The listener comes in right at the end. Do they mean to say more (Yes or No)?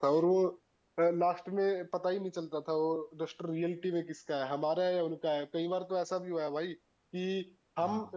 No